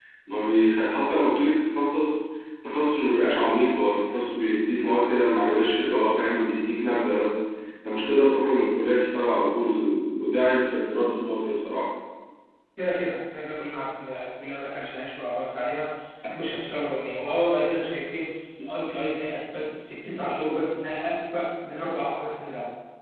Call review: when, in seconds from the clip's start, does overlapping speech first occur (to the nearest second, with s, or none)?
none